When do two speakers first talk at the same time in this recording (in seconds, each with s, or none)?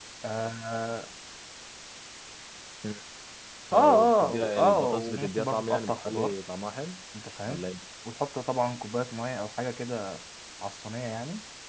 3.7 s